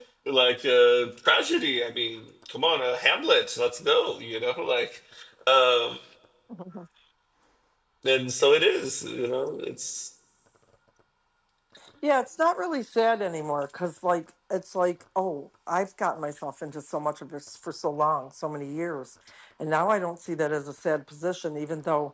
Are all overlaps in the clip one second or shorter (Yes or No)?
Yes